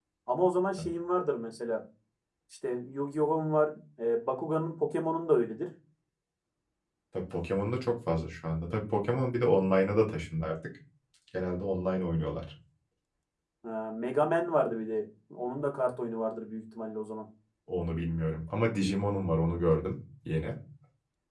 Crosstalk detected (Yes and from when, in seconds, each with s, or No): No